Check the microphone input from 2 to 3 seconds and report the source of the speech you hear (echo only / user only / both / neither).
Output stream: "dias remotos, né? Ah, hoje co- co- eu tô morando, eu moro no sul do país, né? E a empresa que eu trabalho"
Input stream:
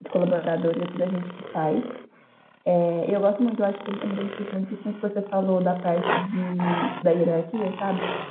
user only